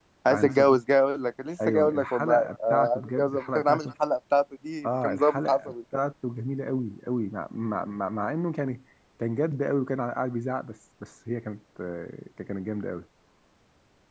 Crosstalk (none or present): present